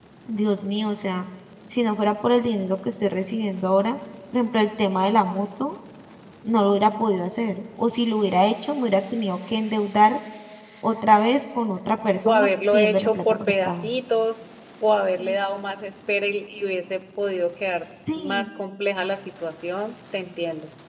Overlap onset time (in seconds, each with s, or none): 12.2 s